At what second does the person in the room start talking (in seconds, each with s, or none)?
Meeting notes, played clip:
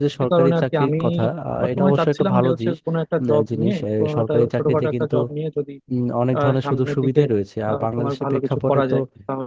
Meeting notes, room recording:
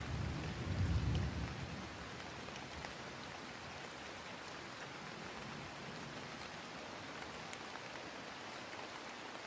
none